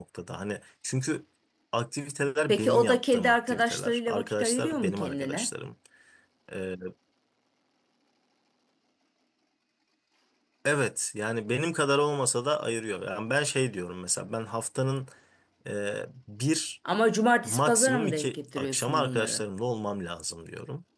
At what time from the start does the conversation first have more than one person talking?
2 s

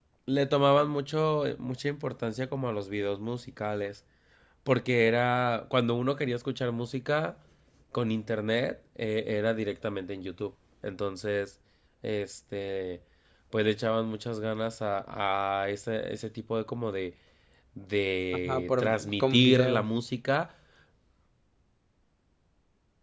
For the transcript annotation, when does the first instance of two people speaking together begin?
18 s

